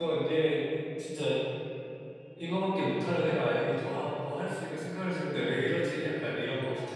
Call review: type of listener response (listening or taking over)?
taking over